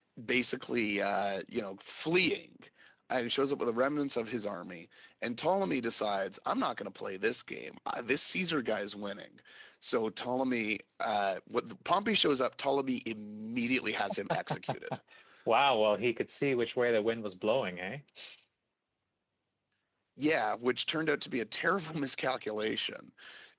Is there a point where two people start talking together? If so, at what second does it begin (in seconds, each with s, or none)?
none